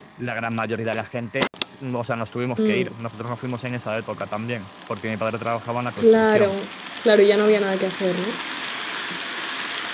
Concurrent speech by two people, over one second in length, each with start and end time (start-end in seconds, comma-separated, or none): none